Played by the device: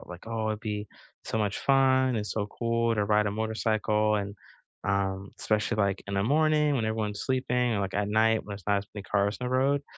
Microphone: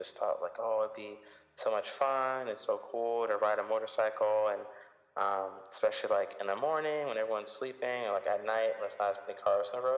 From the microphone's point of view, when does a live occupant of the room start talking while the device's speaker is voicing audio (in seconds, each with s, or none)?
none